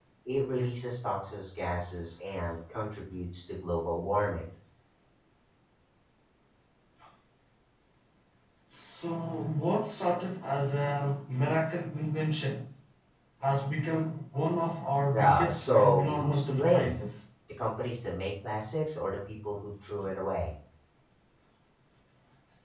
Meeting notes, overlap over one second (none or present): present